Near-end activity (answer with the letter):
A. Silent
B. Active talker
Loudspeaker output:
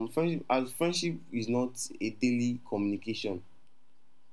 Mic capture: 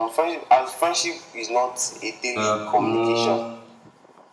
B